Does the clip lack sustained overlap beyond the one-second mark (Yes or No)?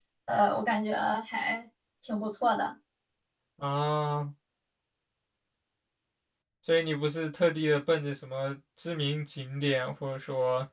Yes